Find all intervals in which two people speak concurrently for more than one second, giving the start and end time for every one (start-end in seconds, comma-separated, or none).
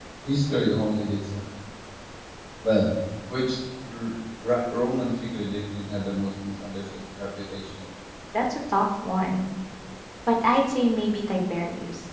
none